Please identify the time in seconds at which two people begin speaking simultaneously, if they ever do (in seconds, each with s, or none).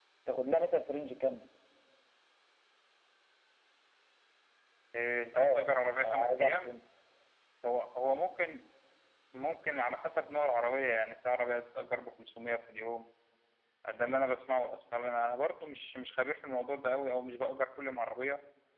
5.3 s